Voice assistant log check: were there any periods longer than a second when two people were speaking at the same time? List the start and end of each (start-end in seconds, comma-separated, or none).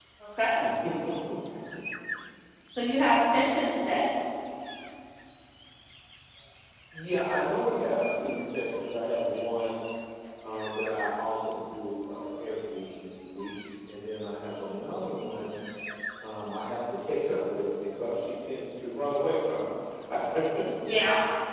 none